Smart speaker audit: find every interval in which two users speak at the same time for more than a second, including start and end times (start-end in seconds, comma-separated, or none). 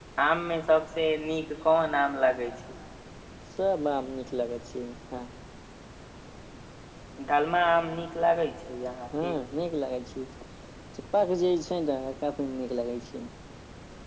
none